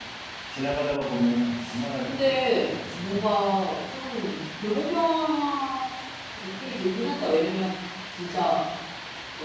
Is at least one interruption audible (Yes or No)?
Yes